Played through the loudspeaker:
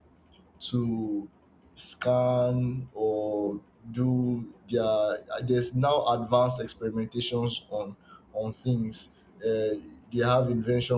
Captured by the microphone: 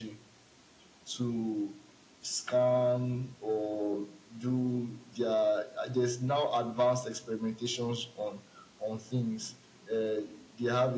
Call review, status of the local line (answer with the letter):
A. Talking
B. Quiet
B